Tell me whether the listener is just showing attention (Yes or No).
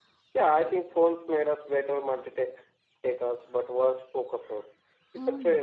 No